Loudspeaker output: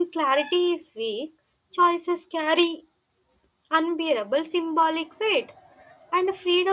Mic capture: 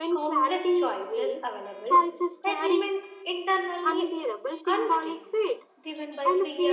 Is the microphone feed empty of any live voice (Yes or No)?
No